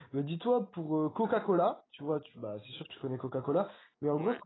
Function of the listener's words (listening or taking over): listening